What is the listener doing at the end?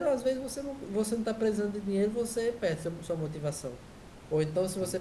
listening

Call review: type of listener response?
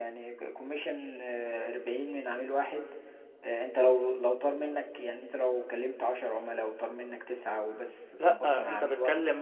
taking over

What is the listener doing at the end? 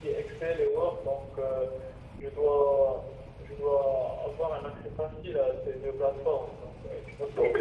taking over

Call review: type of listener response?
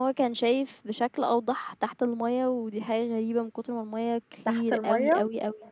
listening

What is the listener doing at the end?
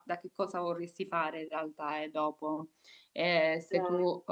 listening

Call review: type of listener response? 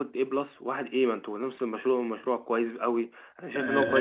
taking over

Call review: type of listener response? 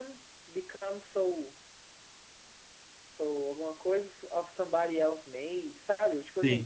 listening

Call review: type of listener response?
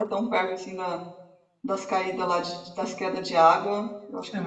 taking over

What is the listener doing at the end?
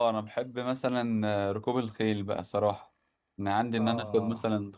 listening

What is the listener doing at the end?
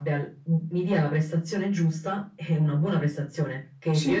listening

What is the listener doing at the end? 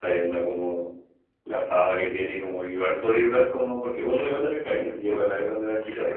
taking over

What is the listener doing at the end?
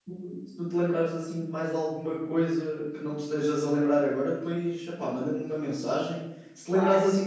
listening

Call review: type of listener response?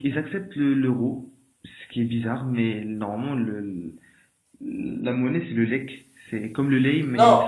taking over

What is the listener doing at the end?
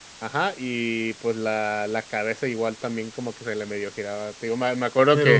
listening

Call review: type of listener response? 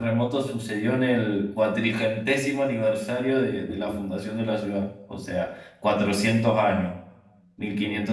listening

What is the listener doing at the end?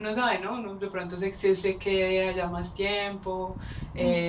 taking over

